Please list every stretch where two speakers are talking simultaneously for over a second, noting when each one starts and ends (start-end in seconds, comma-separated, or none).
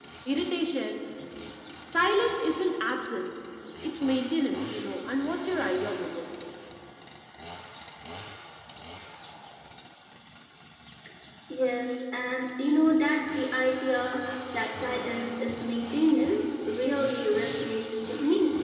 none